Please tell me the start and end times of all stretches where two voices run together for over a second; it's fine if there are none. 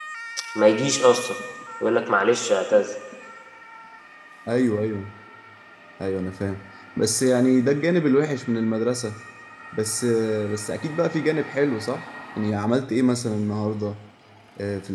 none

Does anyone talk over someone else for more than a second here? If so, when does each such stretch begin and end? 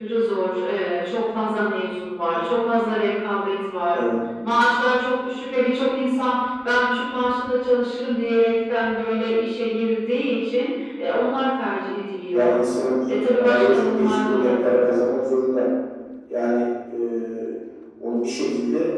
13.2-14.7

